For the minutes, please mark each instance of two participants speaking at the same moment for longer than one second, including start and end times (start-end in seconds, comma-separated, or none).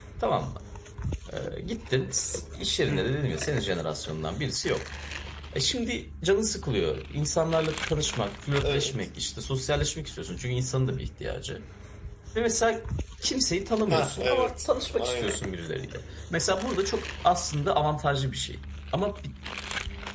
13.9-15.4